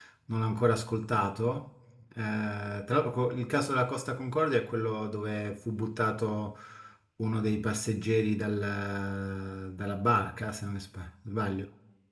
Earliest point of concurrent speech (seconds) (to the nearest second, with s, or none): none